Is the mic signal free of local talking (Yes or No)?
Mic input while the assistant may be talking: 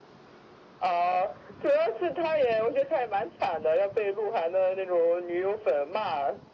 Yes